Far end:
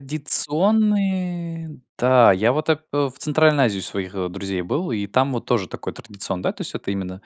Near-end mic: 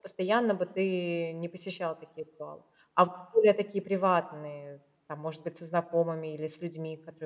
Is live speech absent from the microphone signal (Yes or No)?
No